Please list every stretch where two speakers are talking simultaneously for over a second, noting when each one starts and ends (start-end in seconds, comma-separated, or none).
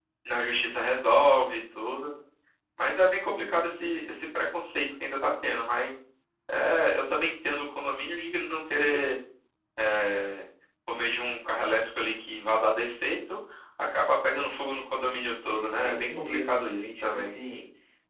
15.8-17.3